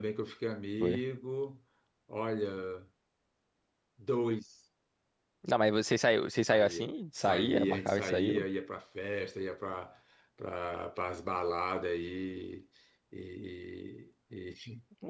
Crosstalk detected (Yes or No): Yes